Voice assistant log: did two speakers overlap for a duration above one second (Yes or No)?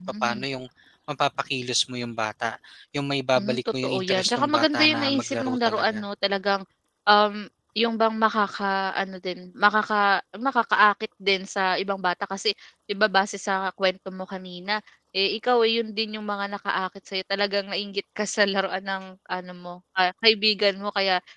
Yes